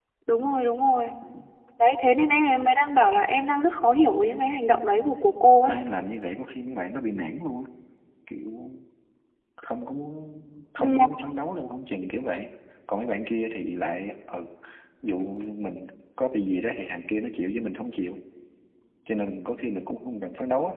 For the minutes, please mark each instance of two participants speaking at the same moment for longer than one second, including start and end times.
none

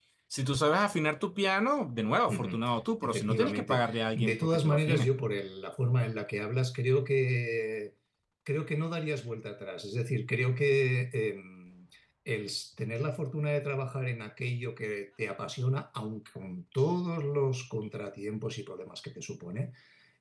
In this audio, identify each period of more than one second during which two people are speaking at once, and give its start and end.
3.0-5.1

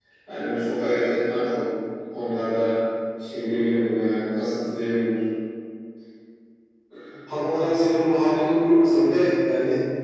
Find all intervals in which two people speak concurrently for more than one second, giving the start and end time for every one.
none

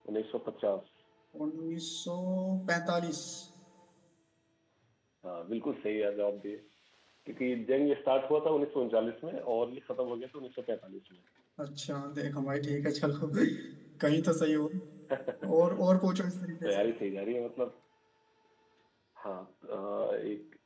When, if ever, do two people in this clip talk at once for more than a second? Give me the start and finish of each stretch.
none

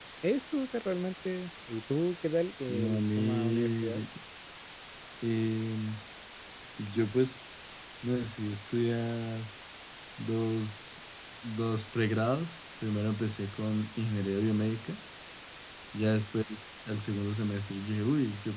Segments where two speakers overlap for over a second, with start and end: 2.7-4.0

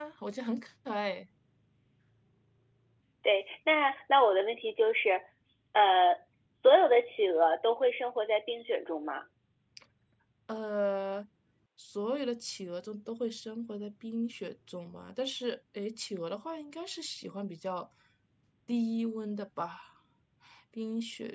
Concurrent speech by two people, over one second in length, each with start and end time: none

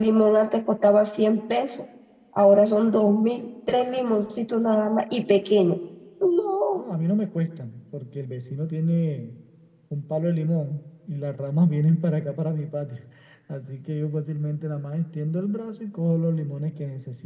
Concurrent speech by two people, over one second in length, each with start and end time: none

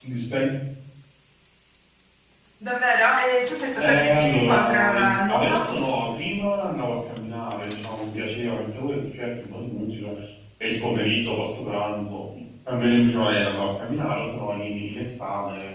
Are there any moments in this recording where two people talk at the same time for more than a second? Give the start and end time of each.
3.8-5.7

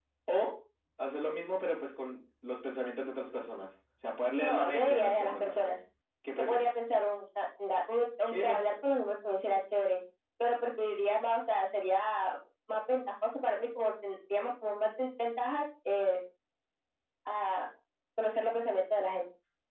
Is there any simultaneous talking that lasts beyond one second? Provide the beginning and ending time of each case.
4.4-5.7

